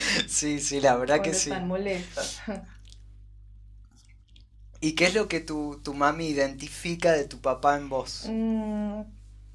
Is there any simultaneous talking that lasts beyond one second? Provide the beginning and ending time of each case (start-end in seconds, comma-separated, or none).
none